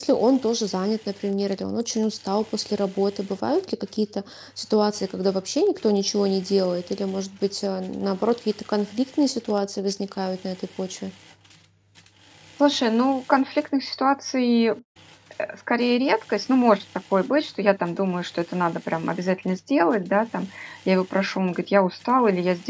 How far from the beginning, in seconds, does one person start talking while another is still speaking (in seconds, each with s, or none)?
none